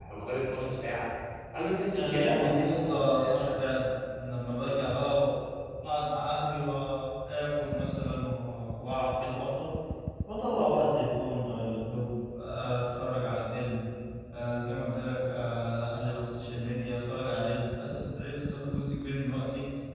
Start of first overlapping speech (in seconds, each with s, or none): 1.9 s